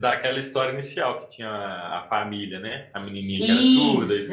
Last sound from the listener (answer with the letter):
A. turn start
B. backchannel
A